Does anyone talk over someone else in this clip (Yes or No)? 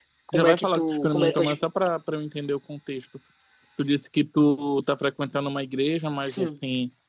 Yes